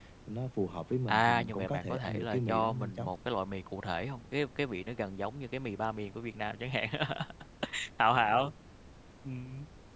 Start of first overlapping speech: 1.1 s

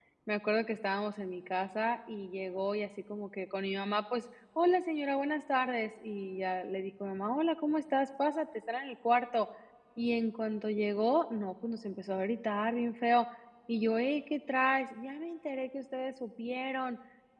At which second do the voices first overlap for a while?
none

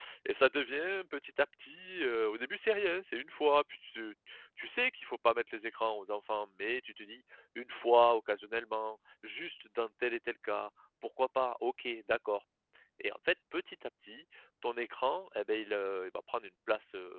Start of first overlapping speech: none

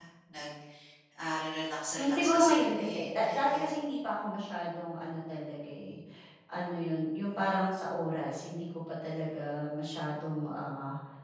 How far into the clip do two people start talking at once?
1.9 s

